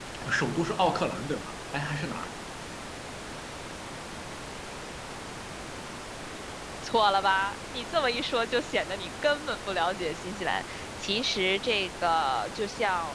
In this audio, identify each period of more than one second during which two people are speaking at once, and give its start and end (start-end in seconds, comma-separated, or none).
none